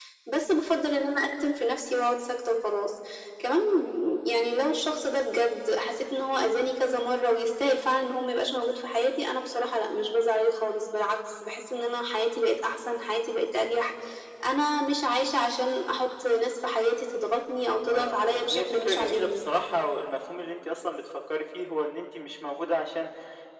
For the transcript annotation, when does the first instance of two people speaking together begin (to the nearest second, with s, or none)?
18 s